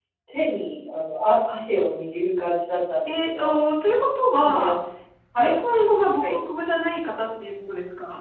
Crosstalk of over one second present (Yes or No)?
No